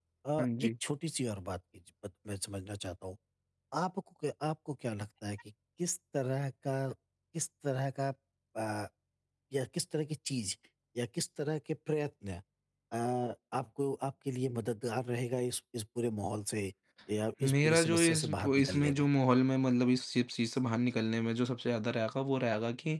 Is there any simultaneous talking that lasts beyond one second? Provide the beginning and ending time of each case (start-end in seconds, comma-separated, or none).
17.4-18.9